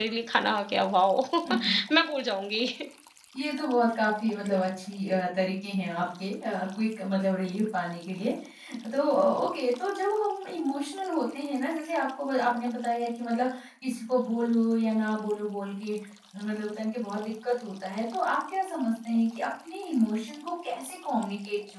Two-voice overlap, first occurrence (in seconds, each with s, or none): none